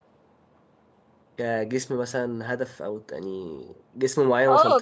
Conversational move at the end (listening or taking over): taking over